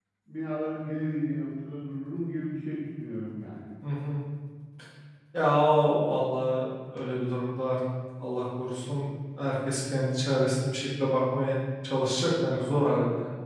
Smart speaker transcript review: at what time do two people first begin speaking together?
none

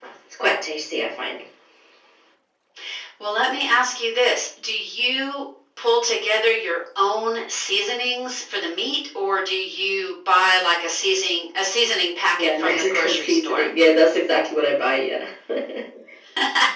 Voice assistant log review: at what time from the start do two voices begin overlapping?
12.4 s

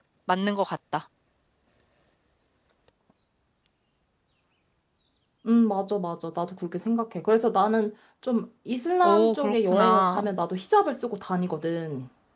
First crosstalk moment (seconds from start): 9.0 s

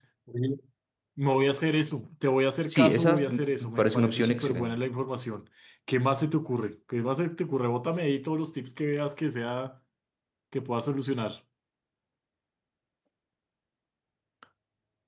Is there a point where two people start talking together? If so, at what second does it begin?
2.7 s

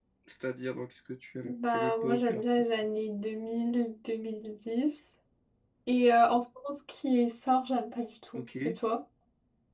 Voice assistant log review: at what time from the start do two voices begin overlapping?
1.4 s

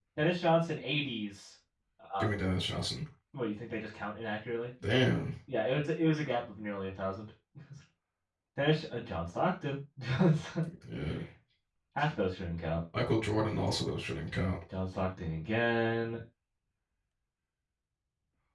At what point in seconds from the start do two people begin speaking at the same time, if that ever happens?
none

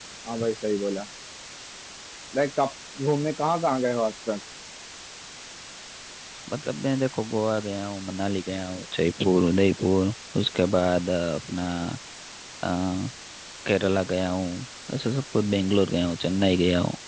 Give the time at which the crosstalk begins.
none

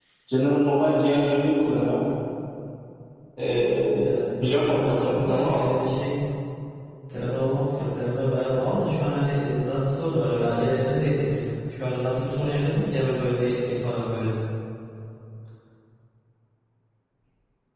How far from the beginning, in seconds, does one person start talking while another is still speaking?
4.4 s

